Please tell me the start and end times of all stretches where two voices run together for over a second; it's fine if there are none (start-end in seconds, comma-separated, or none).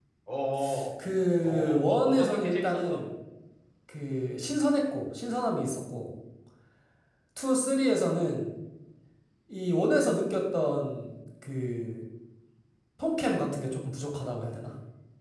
1.4-3.0